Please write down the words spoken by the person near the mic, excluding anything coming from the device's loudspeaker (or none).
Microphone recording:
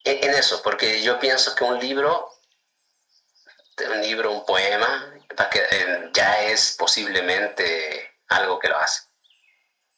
none